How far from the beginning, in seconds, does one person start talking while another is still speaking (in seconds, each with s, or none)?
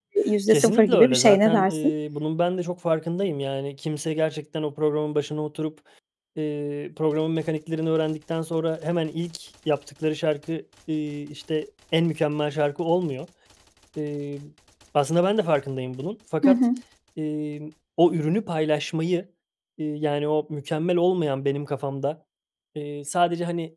0.5 s